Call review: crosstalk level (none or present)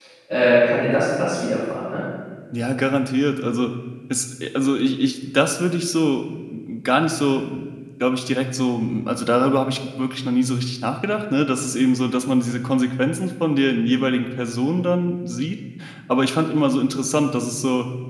none